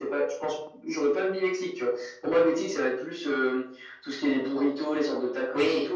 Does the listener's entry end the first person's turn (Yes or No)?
No